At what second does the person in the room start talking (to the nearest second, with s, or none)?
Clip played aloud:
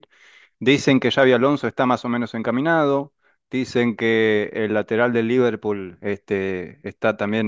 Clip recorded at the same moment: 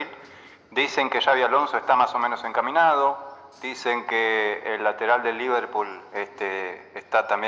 none